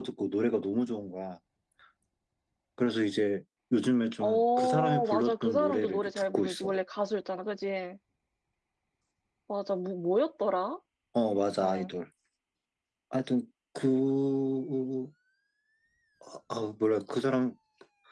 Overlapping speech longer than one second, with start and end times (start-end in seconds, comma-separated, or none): 4.2-6.7